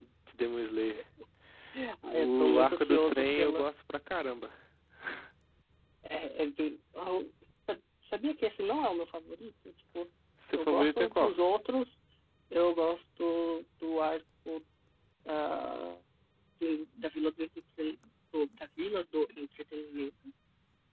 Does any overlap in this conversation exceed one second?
Yes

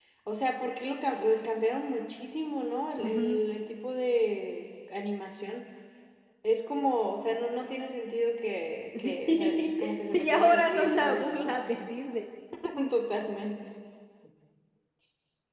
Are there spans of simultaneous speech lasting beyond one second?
Yes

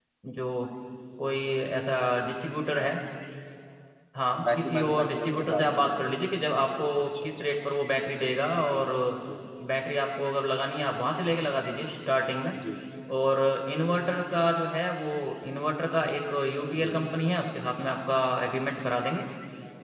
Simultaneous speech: Yes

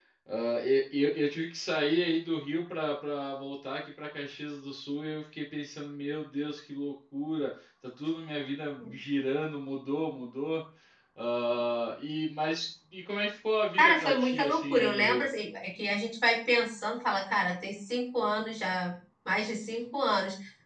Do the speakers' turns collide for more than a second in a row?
Yes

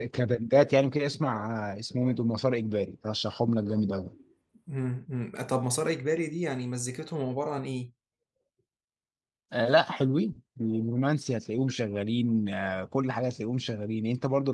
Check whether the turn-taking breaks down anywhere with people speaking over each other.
No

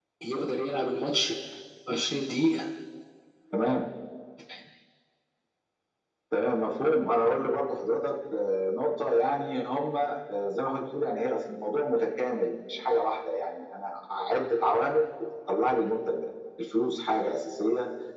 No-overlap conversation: Yes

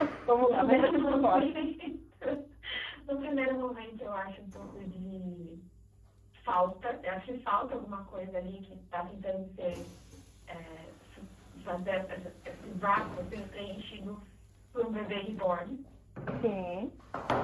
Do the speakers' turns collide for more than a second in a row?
Yes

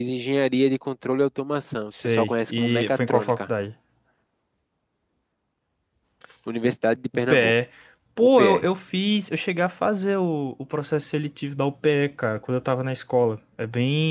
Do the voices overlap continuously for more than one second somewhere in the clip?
Yes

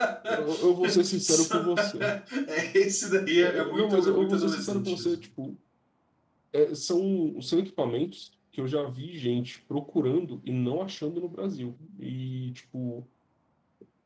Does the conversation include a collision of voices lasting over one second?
Yes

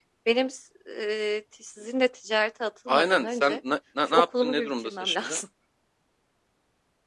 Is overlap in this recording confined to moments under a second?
No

